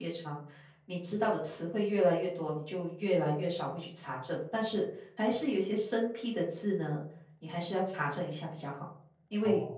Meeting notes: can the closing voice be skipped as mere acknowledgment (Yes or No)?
Yes